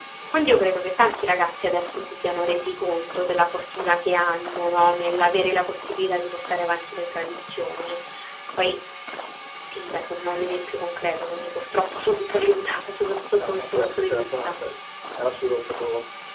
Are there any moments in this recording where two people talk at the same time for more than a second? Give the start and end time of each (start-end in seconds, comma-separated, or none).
13.3-14.6